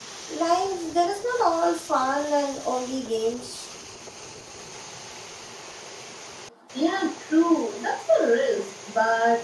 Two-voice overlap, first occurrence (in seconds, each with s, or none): none